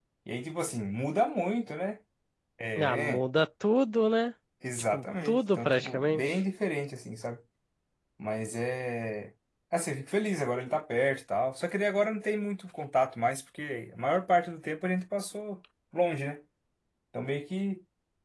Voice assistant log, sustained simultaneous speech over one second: present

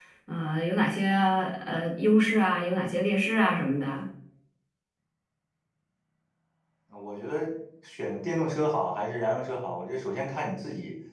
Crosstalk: none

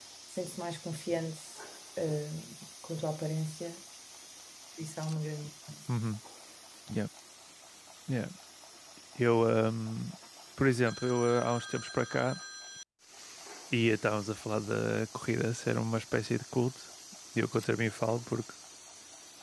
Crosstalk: none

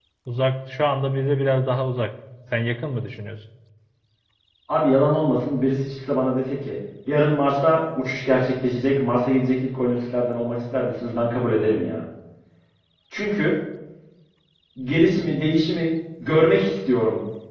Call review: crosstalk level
none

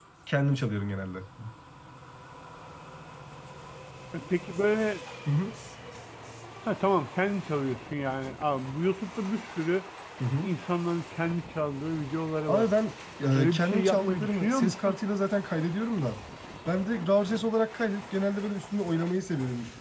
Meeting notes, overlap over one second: present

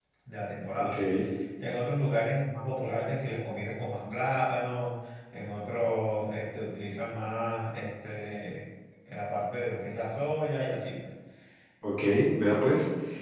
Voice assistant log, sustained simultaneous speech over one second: none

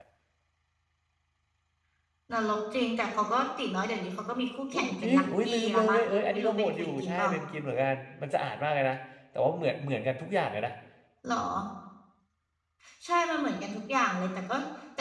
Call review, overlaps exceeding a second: present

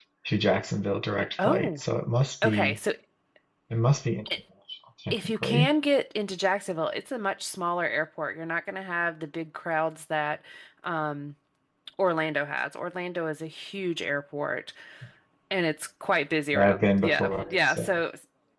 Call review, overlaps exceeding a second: present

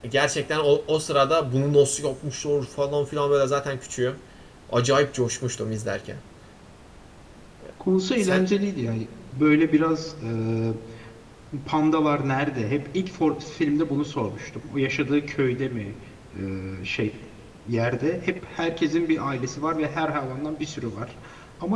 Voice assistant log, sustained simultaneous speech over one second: none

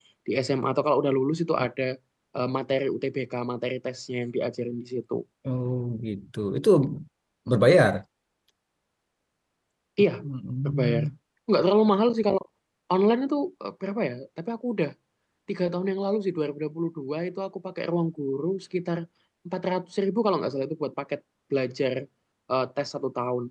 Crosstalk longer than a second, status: none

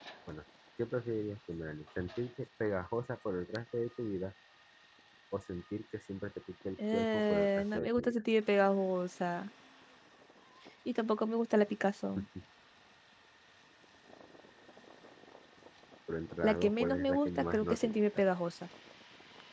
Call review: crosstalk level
present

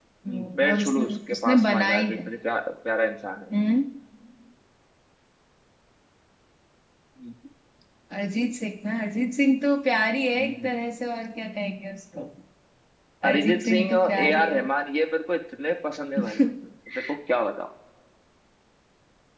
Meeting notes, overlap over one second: present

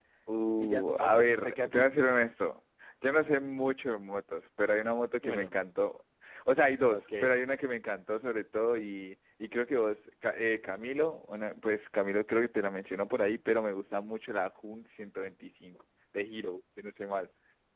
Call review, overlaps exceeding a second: present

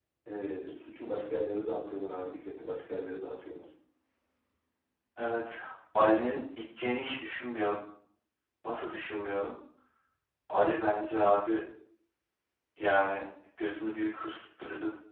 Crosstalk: none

